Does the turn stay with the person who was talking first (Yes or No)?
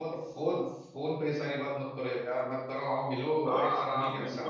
No